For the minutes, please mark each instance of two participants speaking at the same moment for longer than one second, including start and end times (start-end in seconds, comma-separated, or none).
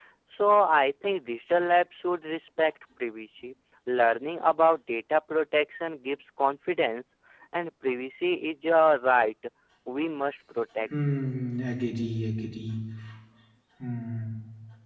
none